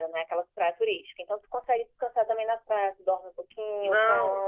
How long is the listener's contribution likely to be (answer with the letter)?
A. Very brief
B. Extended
B